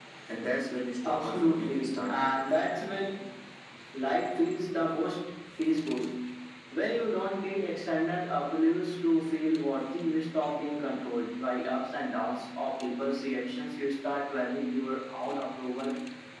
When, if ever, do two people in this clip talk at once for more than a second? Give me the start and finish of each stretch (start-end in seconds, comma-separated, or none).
1.0-2.5